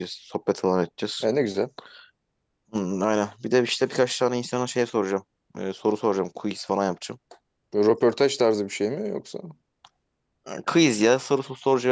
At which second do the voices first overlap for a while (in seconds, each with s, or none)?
none